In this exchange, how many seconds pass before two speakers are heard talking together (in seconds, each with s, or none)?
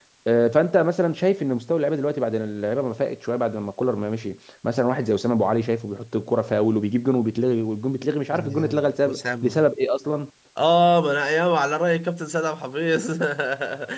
8.3 s